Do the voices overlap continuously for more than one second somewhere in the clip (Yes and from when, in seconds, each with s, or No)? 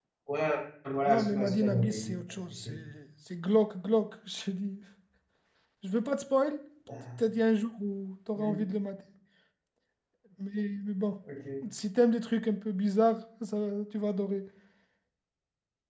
Yes, from 1.1 s